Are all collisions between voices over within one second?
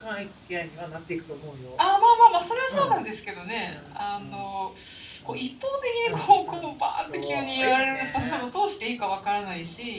No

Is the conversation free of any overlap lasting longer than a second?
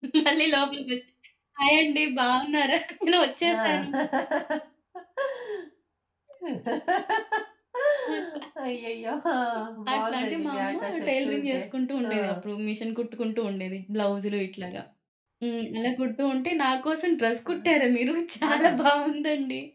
No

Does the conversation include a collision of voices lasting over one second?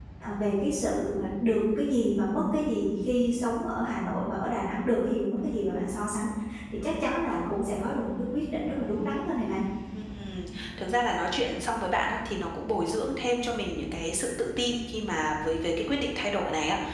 No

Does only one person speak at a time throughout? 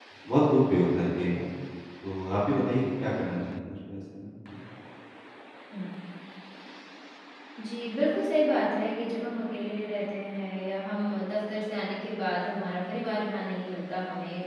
Yes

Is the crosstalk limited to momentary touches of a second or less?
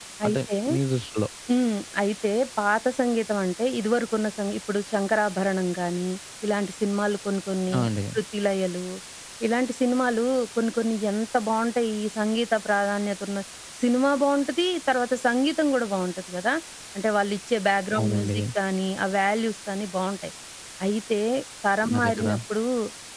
Yes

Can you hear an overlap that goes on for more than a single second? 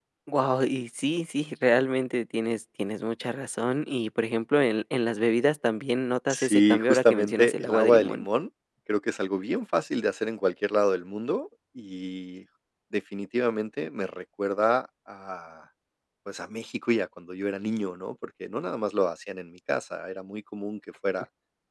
Yes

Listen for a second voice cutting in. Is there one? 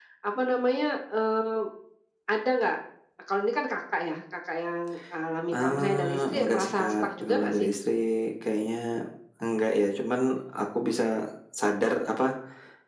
Yes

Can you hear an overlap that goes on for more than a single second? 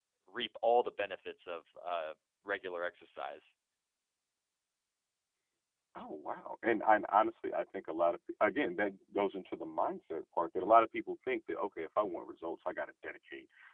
No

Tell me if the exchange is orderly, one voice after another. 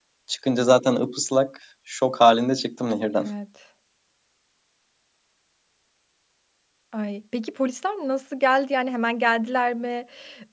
Yes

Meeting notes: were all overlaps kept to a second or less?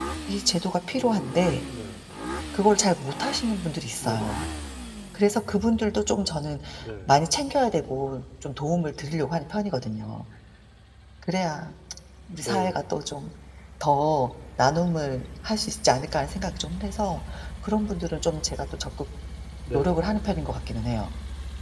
Yes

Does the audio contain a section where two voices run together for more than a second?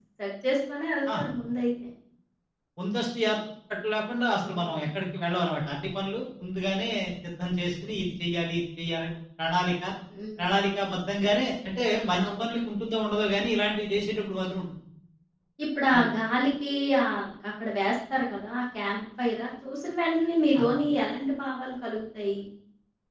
No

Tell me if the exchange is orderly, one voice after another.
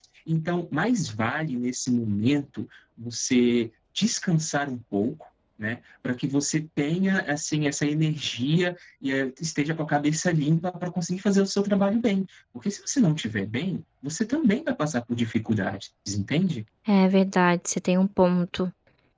Yes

